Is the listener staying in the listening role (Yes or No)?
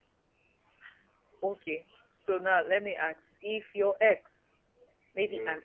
Yes